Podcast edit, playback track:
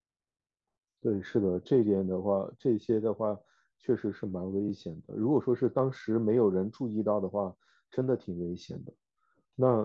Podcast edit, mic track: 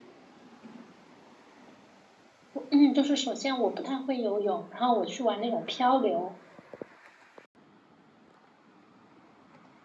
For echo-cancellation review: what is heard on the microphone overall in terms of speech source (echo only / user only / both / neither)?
user only